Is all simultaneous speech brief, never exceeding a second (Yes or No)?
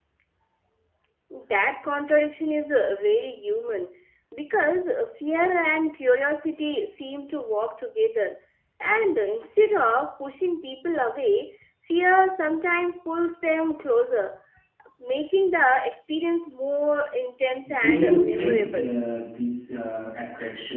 No